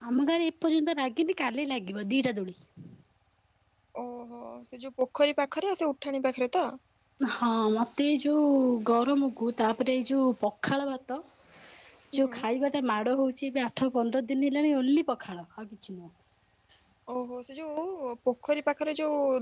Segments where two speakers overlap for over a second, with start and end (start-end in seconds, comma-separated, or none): none